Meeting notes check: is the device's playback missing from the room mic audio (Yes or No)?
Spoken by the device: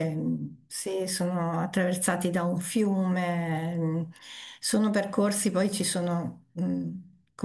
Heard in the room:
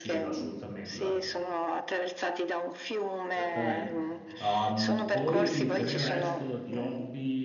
No